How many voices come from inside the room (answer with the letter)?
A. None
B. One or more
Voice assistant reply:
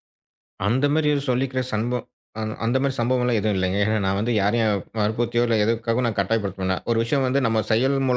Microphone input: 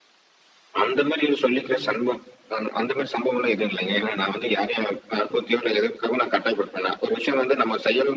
B